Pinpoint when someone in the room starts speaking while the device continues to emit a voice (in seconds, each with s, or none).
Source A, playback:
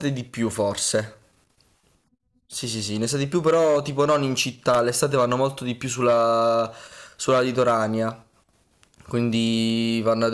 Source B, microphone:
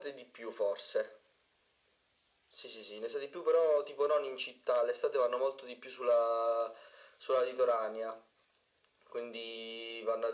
none